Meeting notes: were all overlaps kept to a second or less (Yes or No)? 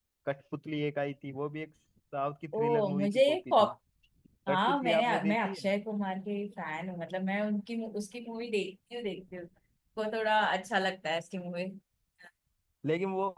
No